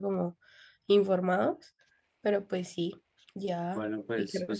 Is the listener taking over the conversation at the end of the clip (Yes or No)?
Yes